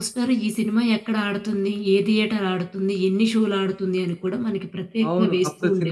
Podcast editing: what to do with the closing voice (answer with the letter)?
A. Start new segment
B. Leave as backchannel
A